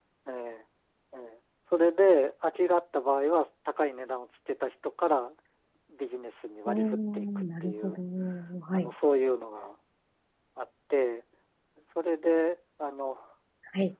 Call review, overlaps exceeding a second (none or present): present